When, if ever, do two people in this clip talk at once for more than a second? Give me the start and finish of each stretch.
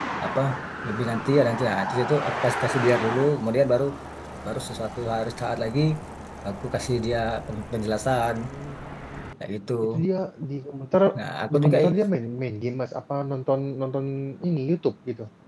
none

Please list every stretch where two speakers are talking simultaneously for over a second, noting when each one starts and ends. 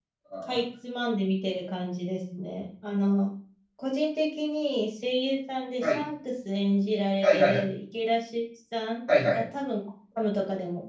none

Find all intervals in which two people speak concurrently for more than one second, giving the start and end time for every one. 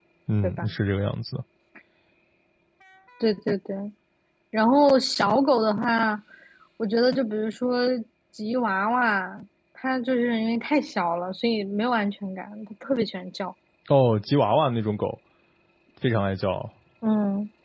none

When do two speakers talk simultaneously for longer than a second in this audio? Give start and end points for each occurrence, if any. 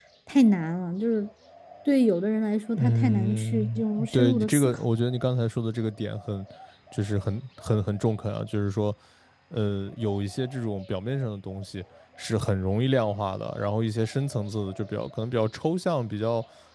2.8-4.8

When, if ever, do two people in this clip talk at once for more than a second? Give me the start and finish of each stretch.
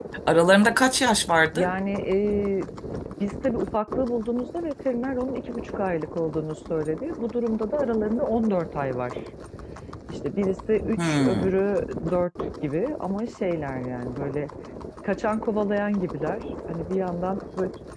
none

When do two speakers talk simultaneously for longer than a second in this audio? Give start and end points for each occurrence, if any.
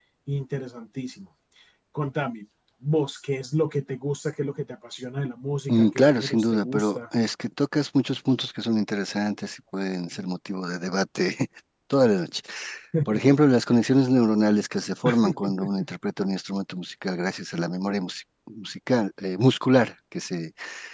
5.7-7.0

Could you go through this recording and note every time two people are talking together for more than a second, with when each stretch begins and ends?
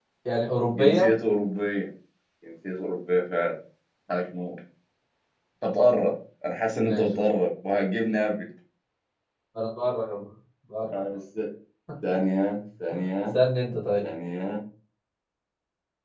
none

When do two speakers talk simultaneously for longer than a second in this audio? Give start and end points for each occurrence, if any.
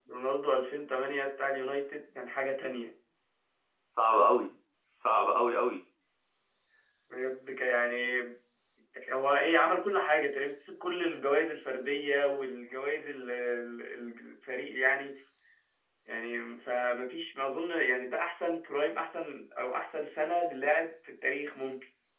none

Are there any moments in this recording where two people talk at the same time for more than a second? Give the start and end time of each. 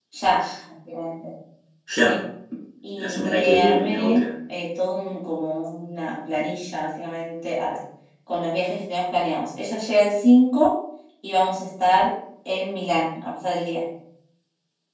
3.0-4.2

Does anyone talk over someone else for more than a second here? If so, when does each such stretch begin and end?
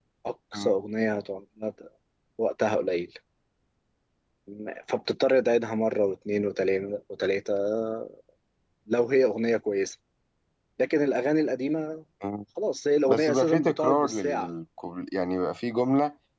13.1-14.5

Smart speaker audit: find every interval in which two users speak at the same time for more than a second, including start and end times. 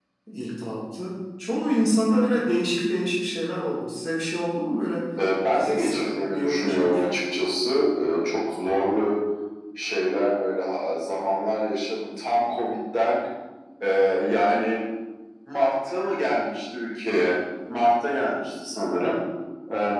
5.5-7.0

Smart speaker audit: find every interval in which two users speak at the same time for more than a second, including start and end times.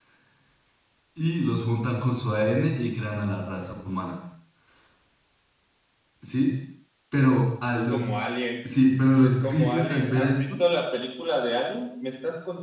9.2-10.6

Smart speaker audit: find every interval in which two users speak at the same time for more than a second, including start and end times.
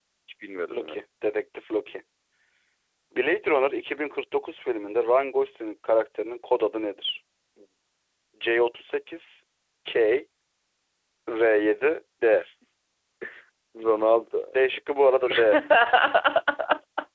none

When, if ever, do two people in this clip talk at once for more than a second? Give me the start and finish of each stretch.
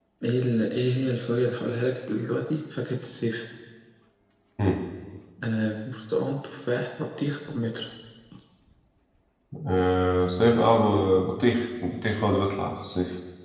none

